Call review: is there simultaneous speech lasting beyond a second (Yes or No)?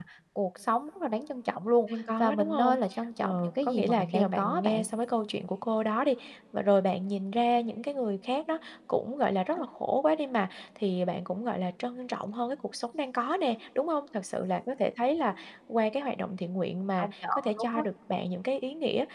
Yes